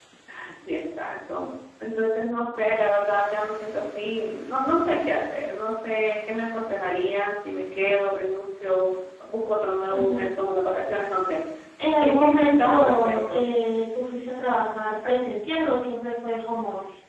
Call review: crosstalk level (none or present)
present